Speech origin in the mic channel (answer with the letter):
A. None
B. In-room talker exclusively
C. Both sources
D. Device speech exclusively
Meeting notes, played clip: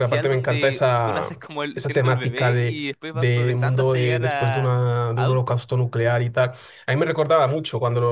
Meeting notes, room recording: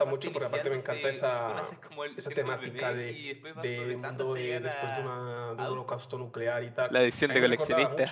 C